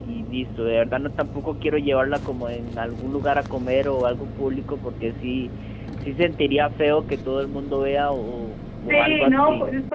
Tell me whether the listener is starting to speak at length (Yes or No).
Yes